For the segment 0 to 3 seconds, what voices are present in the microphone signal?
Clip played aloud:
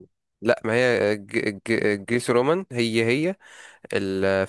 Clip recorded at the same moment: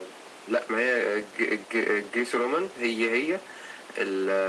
echo only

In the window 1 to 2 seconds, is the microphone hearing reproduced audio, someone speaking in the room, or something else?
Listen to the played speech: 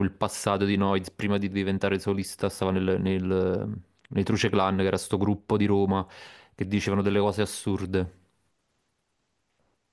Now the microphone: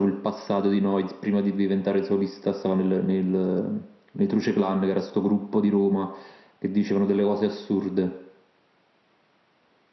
echo only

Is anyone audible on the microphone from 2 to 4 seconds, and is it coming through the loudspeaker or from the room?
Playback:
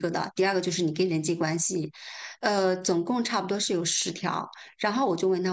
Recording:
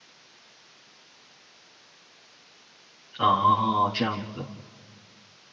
user only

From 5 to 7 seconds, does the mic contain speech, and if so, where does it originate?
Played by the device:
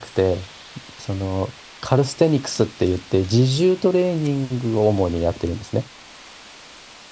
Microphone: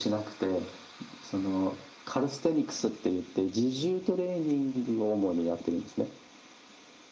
echo only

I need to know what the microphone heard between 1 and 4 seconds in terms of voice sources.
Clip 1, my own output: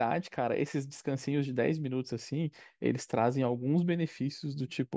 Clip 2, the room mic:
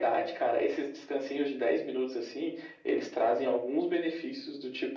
echo only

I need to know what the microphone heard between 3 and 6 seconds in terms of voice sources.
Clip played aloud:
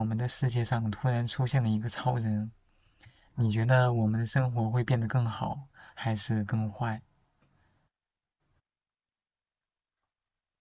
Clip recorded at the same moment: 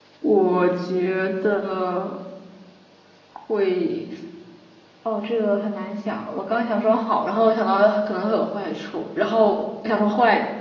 user only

